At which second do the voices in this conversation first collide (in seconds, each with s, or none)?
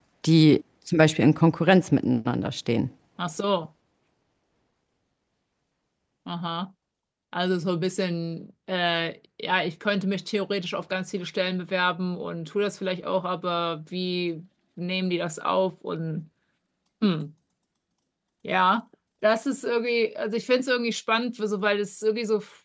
none